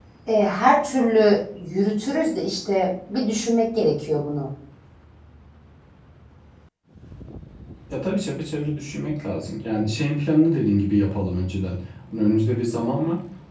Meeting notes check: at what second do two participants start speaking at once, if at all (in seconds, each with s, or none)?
none